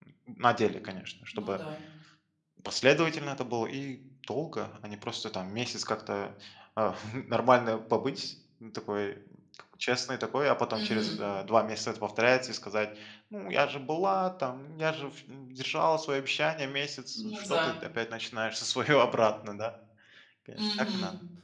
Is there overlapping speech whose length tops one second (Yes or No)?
No